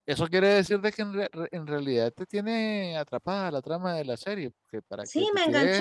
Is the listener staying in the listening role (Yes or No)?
No